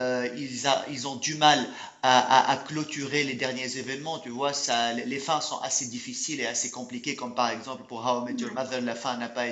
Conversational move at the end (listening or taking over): listening